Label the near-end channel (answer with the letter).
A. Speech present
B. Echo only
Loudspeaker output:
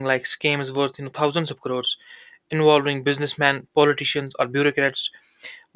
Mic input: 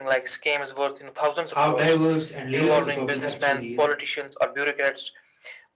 A